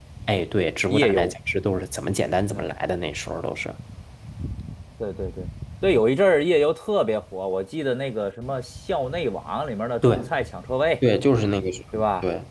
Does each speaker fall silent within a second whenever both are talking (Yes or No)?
Yes